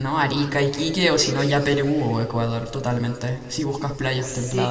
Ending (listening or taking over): taking over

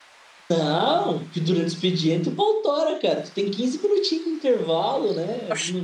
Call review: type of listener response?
taking over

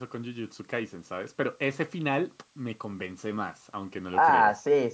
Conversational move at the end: taking over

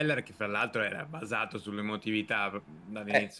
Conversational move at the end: taking over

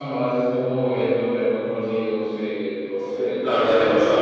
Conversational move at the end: taking over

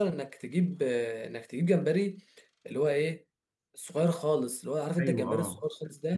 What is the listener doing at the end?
taking over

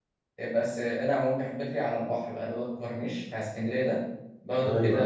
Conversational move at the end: listening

